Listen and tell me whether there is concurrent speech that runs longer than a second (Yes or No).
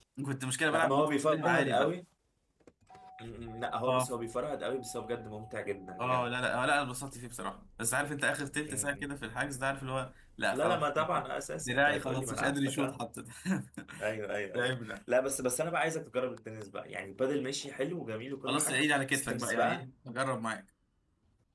Yes